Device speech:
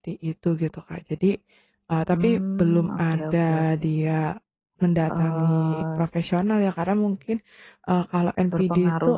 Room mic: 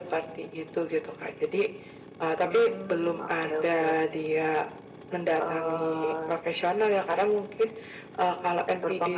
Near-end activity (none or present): none